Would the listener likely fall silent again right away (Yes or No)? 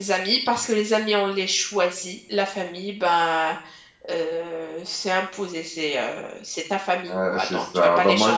No